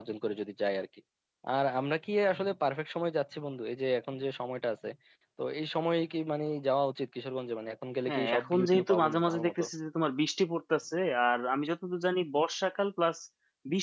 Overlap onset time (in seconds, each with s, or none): 8.1 s